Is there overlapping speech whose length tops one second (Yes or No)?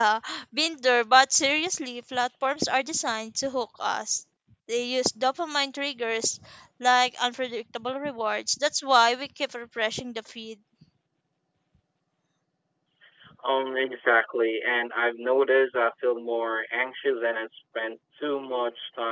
No